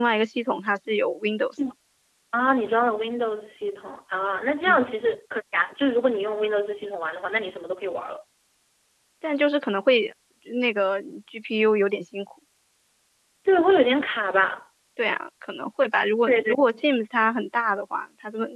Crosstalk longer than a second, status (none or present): none